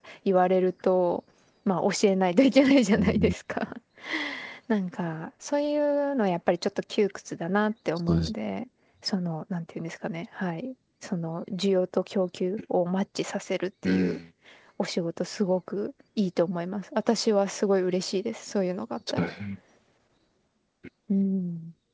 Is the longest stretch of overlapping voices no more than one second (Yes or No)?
Yes